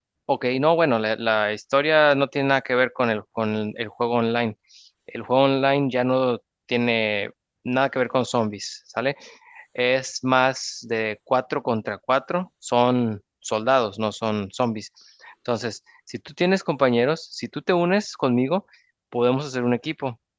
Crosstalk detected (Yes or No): No